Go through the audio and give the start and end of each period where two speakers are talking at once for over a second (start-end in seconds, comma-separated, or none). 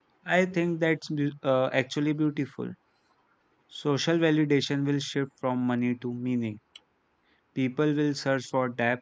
none